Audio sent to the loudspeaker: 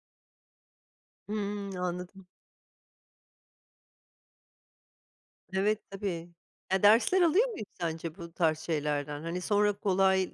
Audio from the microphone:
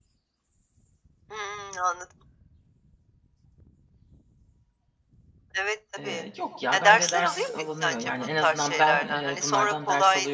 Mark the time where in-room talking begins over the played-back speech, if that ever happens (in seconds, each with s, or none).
6.0 s